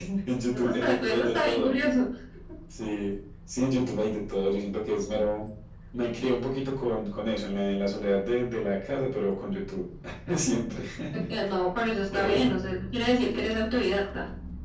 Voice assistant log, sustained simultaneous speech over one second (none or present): present